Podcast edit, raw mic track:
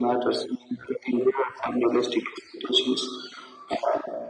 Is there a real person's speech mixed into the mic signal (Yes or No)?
No